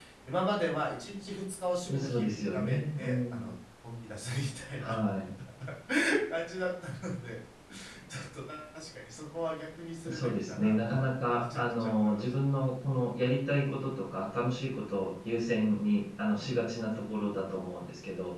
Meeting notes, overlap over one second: present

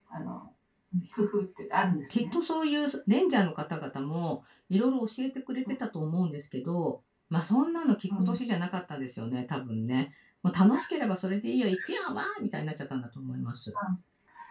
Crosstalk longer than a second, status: none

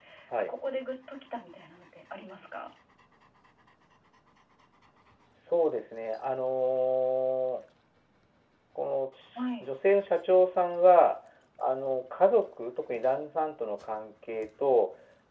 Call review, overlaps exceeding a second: none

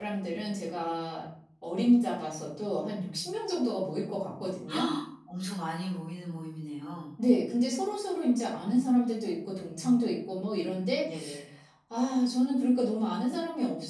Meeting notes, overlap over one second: none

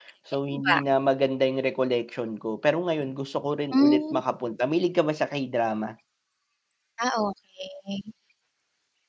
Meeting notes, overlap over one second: none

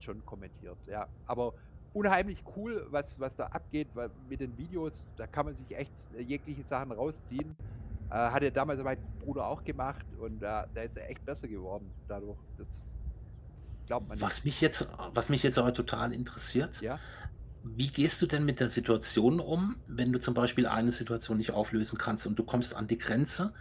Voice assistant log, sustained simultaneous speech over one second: none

